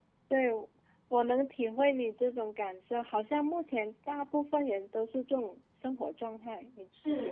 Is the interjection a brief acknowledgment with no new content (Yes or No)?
No